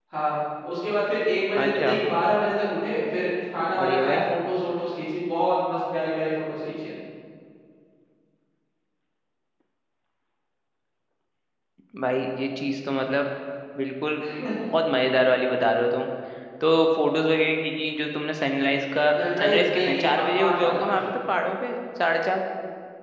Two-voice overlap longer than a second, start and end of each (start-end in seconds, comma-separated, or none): 19.4-21.0